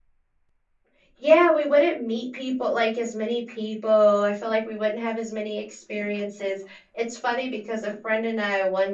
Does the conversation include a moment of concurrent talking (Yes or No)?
No